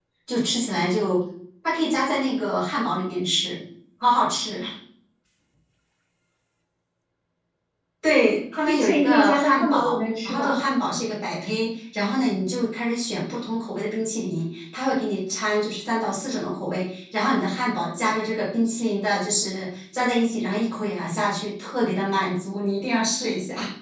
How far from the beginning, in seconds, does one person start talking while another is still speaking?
9 s

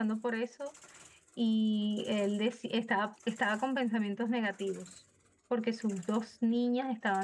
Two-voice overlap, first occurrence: none

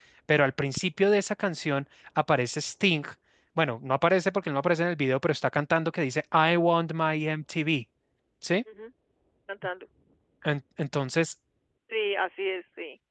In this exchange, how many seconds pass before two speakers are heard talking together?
none

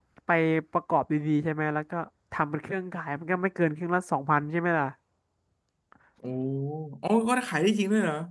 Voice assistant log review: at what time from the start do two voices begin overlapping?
none

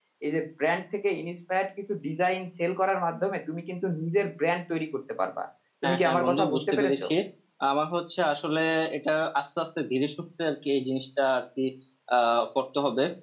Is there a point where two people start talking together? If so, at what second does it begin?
6 s

